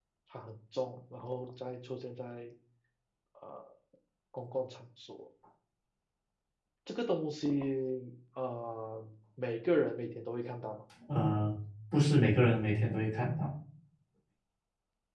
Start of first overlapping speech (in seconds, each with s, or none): none